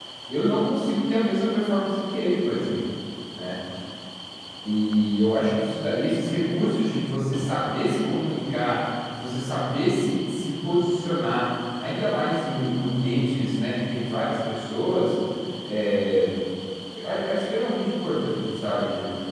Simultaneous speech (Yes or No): No